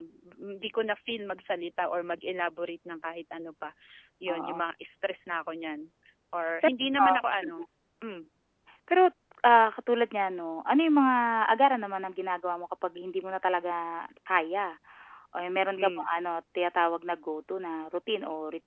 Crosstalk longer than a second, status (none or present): none